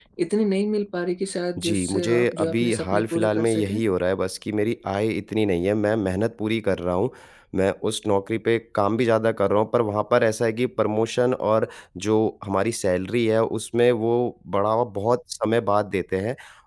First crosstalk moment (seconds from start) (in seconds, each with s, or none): 1.6 s